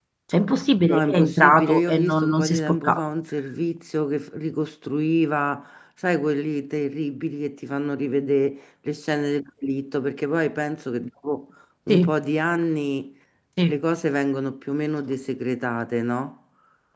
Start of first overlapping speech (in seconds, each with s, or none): 0.8 s